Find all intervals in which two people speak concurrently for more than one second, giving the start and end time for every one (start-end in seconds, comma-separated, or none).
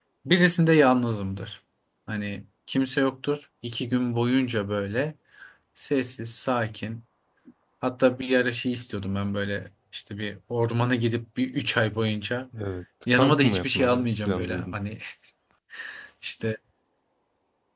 13.2-14.7